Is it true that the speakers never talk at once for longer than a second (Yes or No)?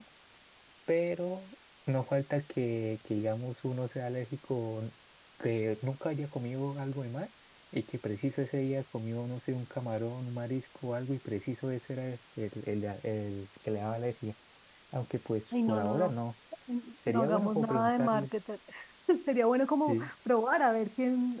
No